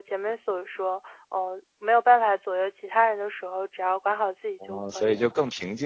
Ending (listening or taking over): taking over